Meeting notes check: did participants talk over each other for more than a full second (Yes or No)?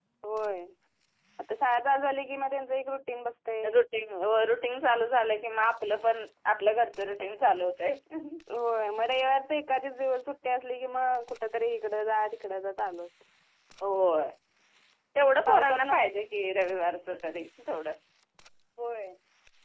No